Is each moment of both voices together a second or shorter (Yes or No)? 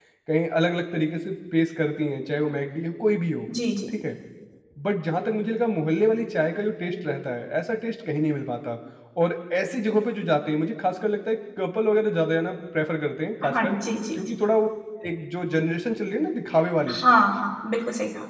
Yes